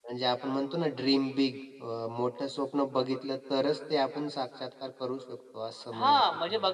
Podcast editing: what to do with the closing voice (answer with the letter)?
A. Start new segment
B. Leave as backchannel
A